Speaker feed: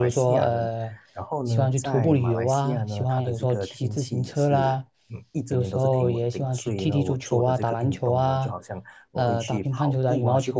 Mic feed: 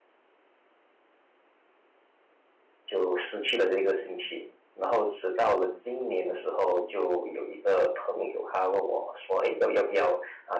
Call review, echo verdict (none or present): none